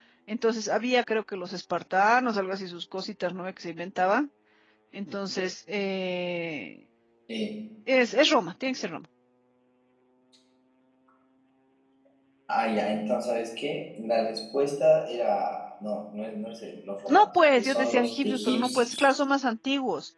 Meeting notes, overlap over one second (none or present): present